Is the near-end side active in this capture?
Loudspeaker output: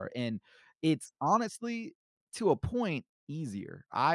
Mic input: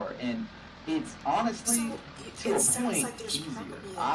Yes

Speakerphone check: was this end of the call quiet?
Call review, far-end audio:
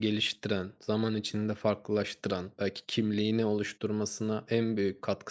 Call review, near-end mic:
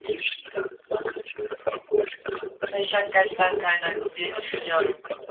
No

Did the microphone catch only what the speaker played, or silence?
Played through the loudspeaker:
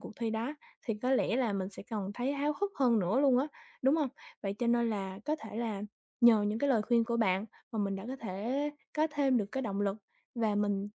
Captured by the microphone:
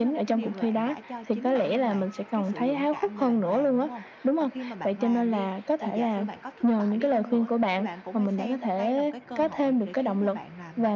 No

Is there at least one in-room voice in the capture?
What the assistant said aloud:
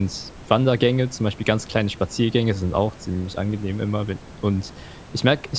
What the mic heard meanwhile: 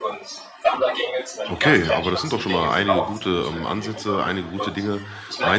Yes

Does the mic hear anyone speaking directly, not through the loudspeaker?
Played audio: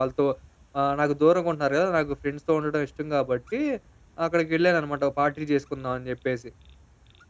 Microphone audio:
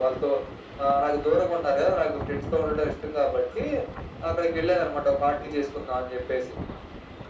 No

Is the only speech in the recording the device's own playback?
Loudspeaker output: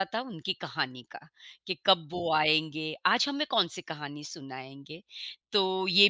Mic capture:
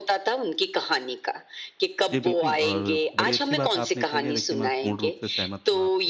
No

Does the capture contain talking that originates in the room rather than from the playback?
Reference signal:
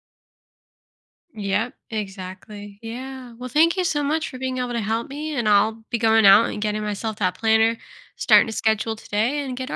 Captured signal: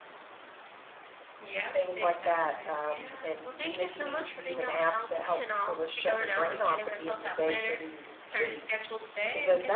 Yes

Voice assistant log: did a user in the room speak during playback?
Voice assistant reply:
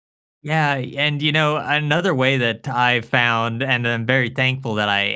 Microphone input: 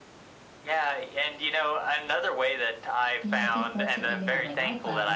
Yes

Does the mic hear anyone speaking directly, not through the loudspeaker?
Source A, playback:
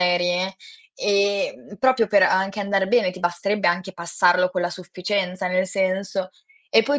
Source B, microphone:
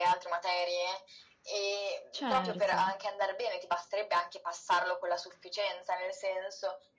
Yes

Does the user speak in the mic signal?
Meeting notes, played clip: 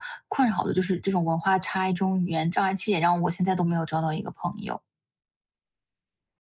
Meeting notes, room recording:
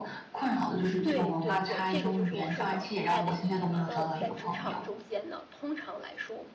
Yes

